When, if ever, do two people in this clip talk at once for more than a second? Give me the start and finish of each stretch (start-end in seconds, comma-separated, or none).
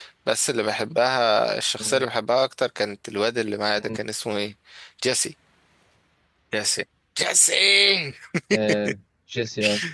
none